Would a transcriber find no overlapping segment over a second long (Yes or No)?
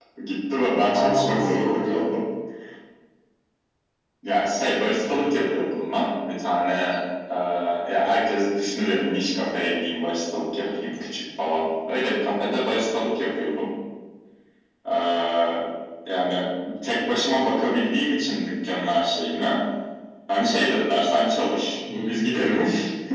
No